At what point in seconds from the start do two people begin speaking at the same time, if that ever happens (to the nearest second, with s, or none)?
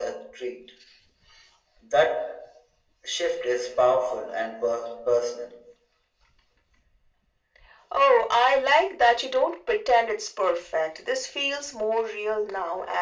none